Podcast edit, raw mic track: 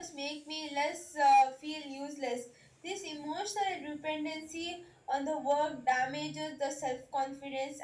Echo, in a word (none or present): none